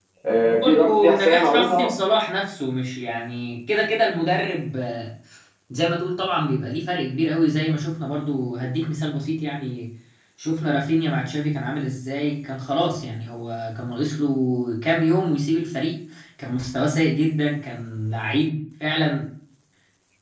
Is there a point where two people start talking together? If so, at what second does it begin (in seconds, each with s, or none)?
0.6 s